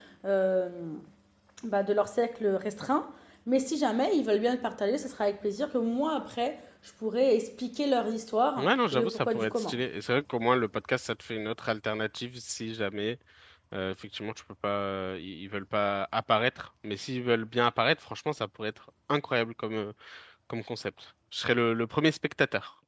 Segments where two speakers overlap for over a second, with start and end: 8.6-9.8

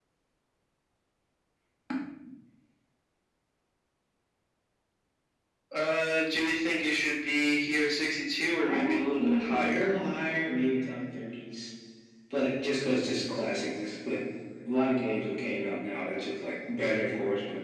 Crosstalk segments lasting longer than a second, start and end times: 8.6-10.0

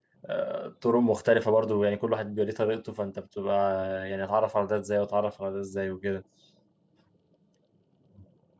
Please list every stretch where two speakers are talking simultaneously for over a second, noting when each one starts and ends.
none

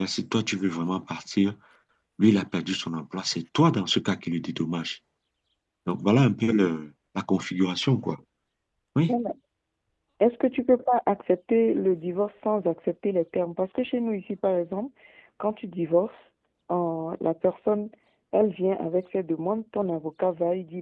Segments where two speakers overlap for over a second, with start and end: none

